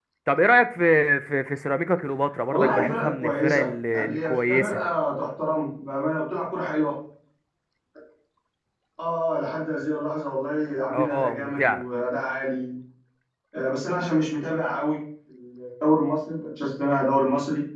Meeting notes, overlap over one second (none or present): present